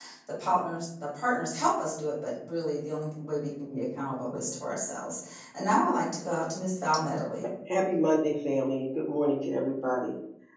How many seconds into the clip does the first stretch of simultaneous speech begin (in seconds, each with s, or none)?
none